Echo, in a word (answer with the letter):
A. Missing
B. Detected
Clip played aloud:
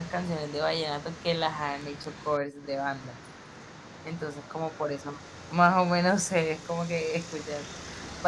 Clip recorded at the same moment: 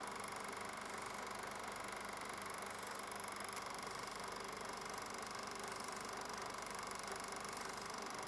A